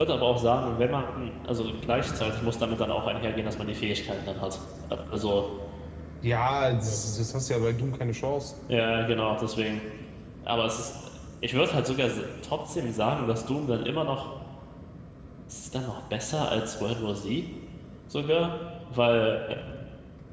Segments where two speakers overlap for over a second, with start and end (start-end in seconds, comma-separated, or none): none